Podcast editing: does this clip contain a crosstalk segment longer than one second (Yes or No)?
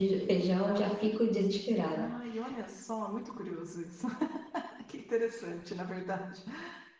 No